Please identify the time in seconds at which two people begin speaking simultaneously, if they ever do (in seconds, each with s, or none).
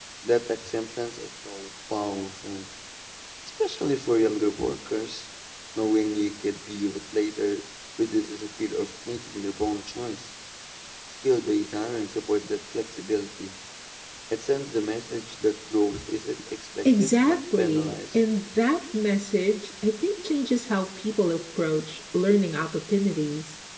16.8 s